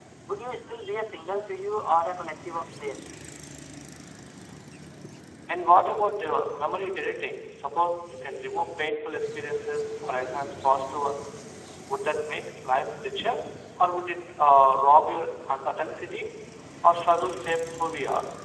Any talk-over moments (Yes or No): No